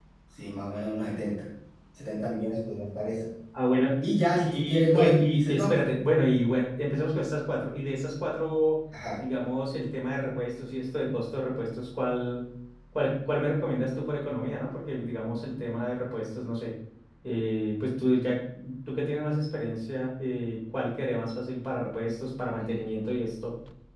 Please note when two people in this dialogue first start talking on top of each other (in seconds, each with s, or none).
4.3 s